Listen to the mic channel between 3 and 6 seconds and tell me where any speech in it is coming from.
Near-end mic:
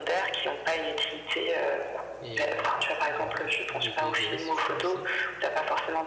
both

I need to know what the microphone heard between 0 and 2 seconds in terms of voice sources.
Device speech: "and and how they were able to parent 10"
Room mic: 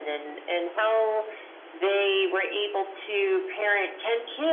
echo only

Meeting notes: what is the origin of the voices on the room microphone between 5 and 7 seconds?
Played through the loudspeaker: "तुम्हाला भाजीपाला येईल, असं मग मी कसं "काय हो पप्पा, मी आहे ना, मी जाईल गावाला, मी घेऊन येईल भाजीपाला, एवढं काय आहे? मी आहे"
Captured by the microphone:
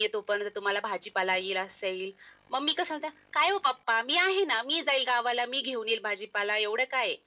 echo only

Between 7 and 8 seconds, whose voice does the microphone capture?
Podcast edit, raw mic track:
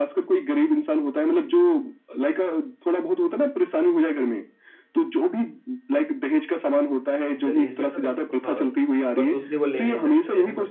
both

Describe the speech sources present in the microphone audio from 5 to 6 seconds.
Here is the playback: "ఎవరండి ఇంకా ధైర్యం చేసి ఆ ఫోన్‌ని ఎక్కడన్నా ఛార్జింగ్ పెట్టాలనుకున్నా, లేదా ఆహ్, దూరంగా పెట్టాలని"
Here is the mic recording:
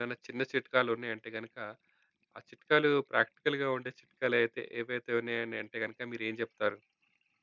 user only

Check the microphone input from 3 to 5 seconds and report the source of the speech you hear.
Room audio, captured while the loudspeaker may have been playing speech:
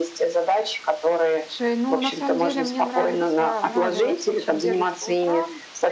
both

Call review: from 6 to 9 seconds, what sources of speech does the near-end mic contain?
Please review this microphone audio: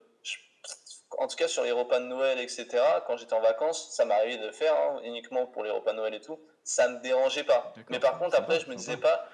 both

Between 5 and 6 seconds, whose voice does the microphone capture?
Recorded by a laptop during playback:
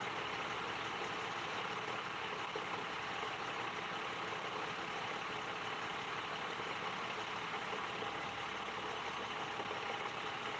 neither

